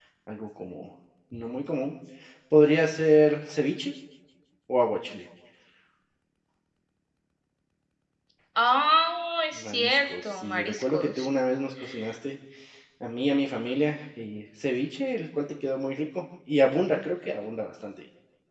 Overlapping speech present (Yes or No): Yes